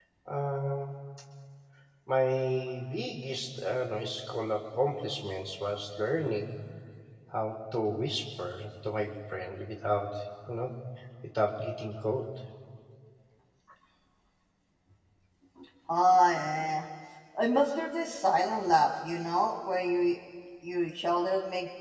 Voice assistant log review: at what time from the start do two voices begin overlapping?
none

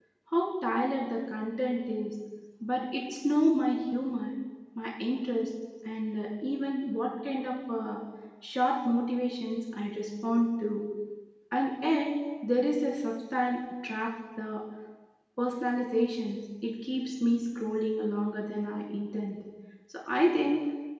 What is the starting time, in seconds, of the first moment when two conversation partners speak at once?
none

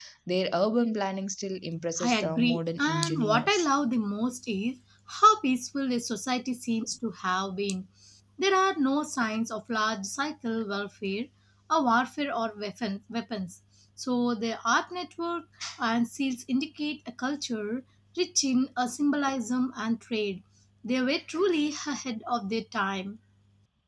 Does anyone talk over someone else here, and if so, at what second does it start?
2.0 s

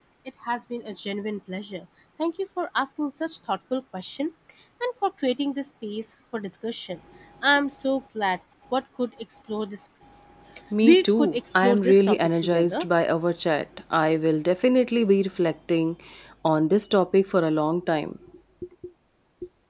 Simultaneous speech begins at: 10.8 s

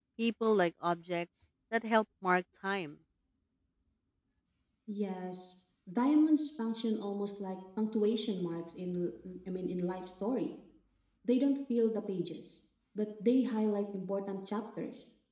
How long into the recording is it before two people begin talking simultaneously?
none

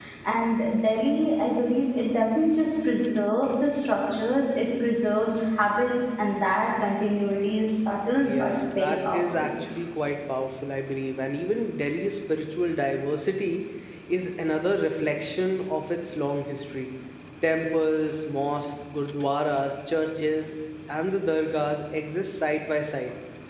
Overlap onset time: 8.2 s

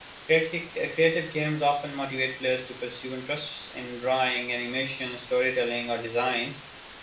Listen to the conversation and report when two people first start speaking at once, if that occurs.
none

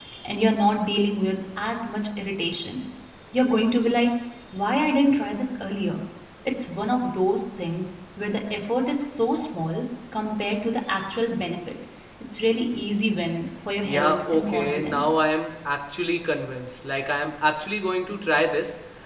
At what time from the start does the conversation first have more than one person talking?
13.8 s

